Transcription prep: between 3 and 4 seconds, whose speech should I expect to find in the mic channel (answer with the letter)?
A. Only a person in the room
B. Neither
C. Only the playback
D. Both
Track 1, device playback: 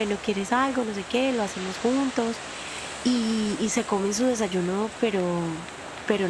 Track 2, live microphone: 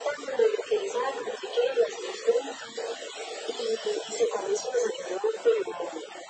C